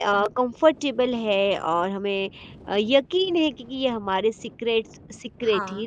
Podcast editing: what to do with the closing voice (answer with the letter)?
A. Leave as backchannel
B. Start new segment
A